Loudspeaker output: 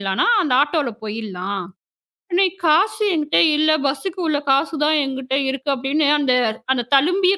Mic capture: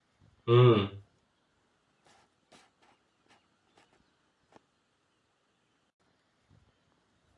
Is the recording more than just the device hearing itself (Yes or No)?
Yes